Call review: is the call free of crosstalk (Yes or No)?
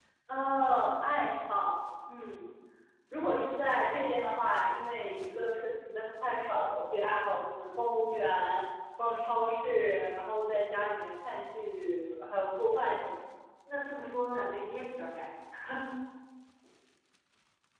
Yes